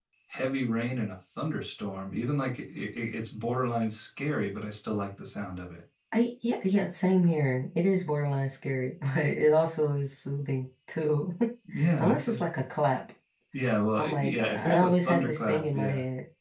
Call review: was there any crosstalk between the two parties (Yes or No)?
Yes